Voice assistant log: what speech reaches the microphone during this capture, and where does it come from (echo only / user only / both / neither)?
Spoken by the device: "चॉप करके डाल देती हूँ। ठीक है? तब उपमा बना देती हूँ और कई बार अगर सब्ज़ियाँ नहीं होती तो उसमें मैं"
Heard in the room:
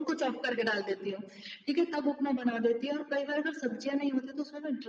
echo only